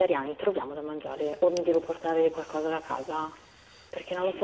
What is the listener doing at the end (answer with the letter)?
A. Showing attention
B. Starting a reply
B